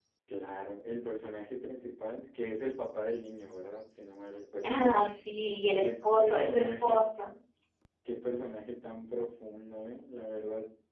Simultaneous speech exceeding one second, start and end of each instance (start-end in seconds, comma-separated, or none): 5.8-7.1